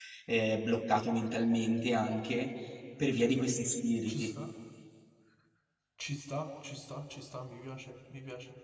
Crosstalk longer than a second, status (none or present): none